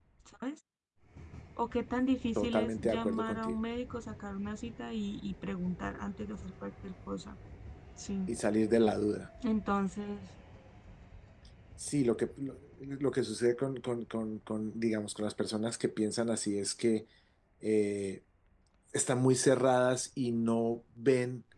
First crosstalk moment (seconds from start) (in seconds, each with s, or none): 2.4 s